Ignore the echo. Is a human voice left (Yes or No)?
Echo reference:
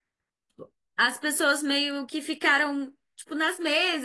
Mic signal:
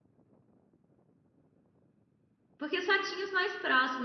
Yes